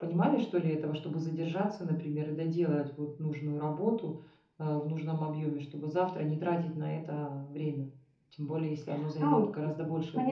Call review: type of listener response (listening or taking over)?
taking over